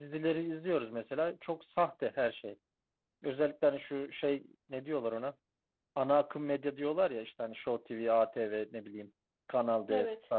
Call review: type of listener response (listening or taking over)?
listening